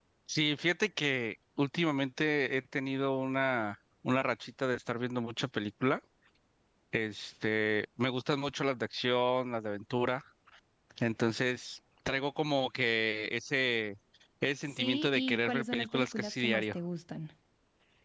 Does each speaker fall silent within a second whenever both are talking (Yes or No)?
No